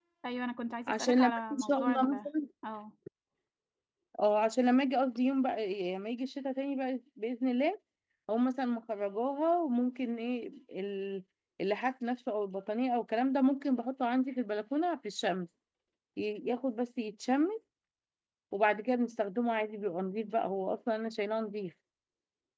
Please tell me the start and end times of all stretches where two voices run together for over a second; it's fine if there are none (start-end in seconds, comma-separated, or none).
0.9-2.3